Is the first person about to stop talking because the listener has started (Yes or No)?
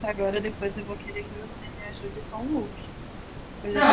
Yes